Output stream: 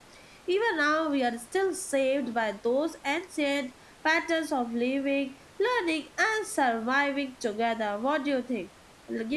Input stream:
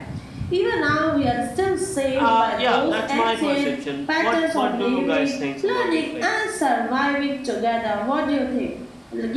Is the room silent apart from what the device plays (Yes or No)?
No